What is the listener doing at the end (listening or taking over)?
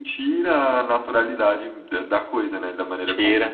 taking over